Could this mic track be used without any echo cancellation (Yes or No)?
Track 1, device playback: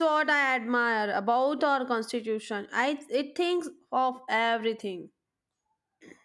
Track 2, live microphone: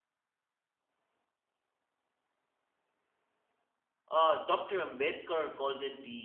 Yes